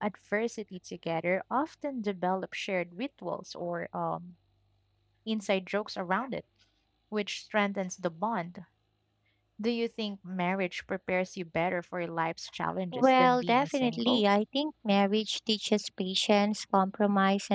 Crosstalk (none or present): present